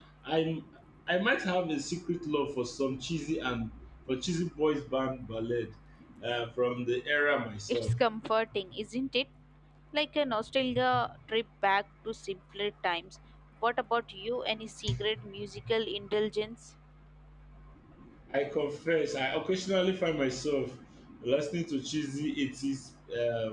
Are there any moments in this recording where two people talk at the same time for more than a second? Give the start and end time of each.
none

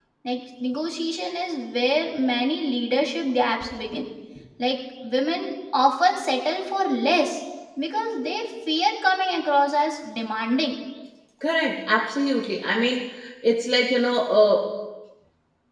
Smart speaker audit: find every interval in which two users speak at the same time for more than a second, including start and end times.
none

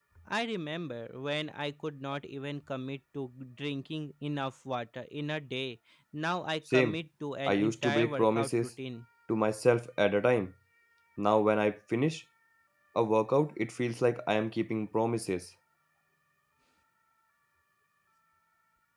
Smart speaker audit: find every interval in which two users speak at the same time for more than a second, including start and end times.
7.5-8.7

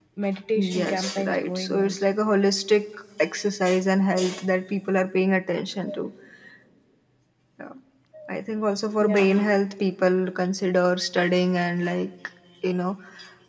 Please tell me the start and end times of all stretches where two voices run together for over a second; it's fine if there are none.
0.6-2.0

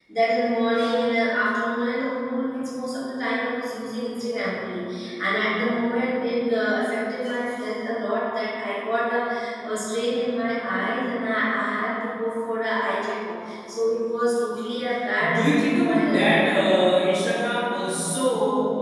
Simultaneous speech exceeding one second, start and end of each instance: 15.3-16.5

